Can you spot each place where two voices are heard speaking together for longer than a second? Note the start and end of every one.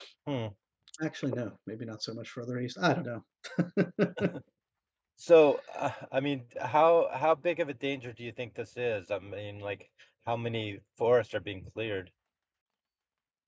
none

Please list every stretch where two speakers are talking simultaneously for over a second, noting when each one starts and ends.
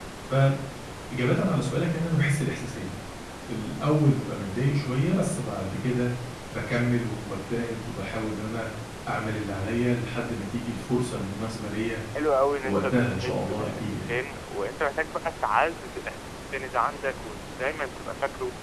12.6-14.1

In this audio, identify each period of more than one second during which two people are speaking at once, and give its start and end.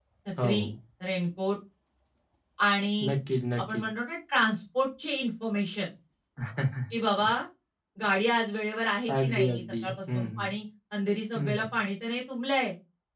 9.2-10.5

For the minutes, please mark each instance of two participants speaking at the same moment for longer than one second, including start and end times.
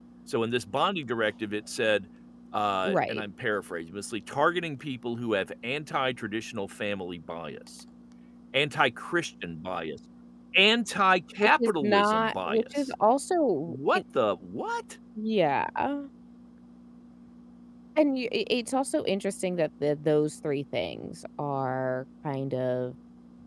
11.4-12.9

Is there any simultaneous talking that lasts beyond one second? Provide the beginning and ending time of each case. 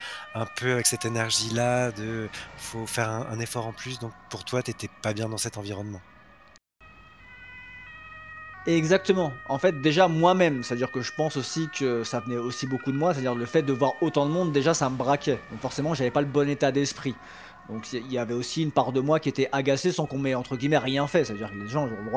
none

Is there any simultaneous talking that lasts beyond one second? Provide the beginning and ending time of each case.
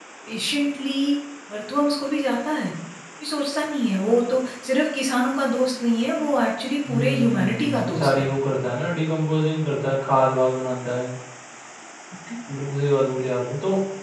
6.9-8.3

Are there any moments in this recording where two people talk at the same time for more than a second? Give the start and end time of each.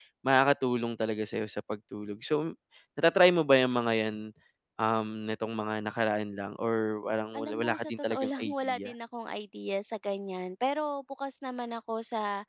7.4-8.9

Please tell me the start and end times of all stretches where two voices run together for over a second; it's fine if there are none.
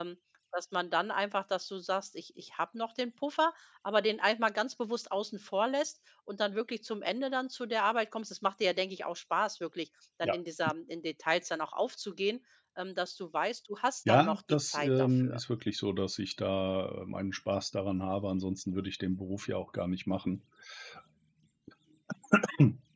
14.1-15.4

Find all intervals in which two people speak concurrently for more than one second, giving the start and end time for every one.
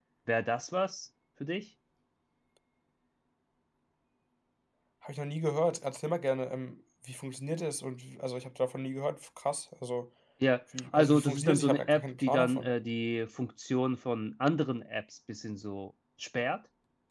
10.9-12.7

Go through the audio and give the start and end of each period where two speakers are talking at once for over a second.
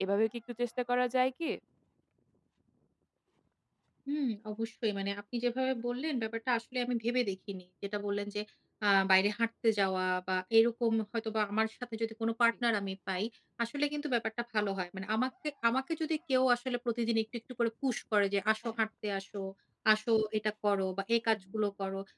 none

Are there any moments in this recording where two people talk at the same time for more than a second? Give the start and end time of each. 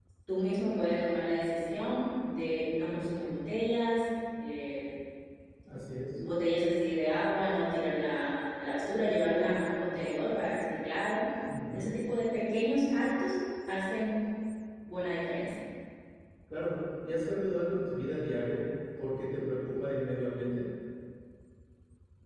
none

